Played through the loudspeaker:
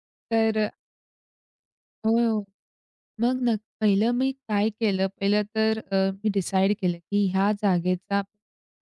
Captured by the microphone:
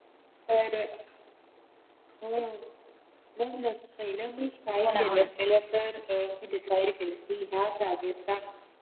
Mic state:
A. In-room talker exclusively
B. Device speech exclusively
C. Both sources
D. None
C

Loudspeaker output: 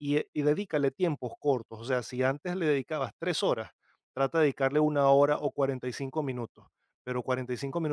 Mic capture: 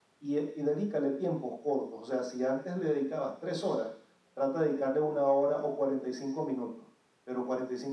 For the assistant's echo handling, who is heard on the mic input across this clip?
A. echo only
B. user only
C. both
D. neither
A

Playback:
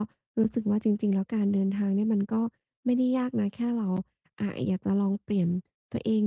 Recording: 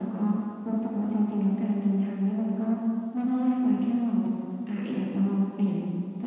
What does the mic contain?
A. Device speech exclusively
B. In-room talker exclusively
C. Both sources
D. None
A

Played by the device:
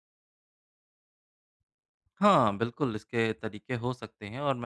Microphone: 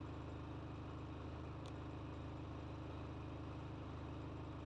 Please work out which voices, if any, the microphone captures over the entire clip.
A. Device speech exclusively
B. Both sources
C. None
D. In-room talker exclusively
C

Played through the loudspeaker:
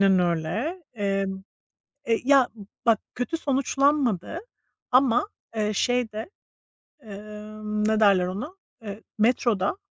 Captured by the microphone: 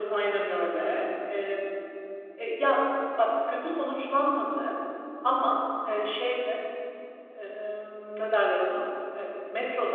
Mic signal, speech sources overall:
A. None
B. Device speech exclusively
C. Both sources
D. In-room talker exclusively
B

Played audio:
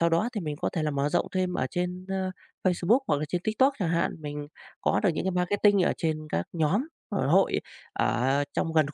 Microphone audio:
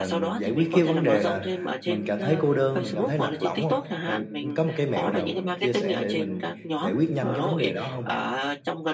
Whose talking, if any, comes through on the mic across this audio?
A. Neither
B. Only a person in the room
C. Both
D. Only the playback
C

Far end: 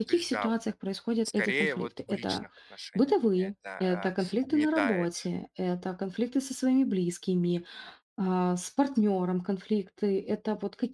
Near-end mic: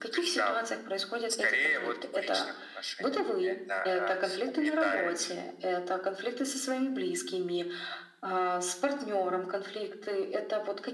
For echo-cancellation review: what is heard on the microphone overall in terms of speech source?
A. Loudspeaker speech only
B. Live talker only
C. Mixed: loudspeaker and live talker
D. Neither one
A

